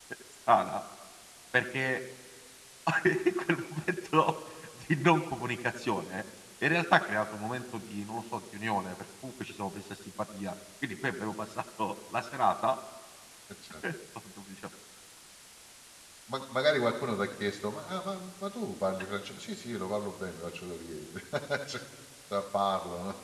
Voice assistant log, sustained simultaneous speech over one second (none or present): none